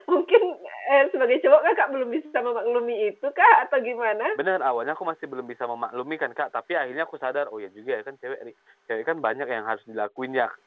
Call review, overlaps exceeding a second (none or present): none